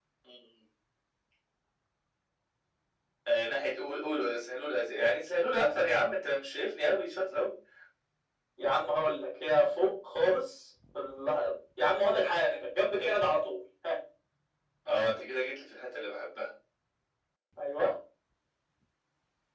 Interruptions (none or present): none